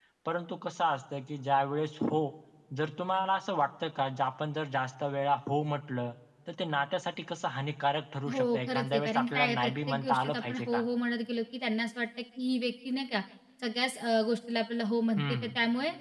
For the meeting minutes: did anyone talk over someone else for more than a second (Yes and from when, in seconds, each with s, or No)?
Yes, from 8.3 s